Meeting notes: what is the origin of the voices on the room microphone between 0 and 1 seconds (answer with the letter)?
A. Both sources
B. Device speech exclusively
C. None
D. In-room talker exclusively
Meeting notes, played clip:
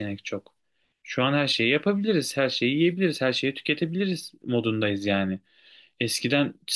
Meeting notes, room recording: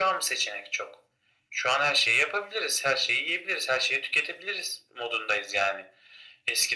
B